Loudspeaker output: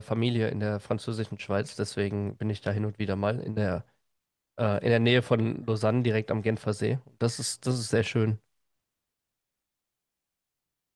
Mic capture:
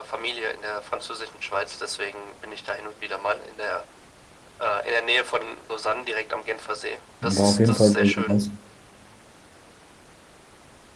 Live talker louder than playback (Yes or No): Yes